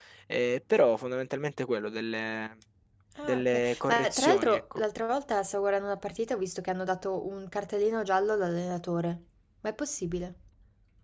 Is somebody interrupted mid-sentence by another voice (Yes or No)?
Yes